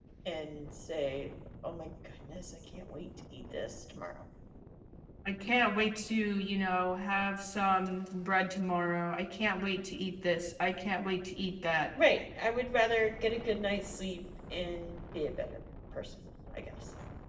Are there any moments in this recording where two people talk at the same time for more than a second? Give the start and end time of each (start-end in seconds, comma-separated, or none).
none